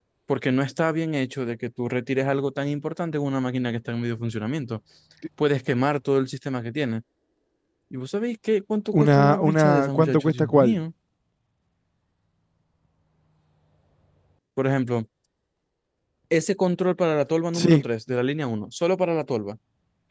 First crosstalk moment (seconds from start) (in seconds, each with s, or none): 8.9 s